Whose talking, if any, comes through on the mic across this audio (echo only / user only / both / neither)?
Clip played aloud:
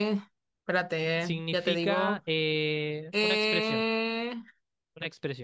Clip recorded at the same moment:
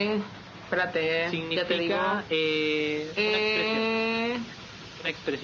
echo only